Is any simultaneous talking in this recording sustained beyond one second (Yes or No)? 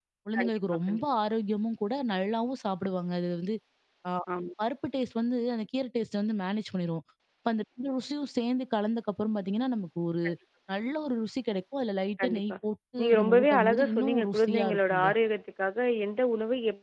Yes